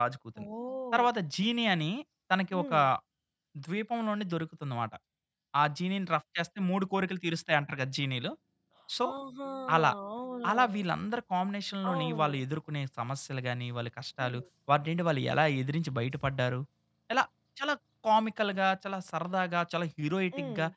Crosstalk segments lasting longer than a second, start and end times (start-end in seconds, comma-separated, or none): none